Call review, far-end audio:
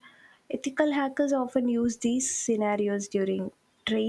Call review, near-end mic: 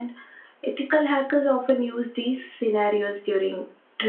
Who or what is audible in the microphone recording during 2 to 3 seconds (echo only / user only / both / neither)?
echo only